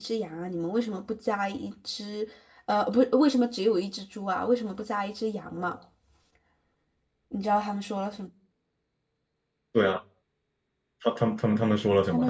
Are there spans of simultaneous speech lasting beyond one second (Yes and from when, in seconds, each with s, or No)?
No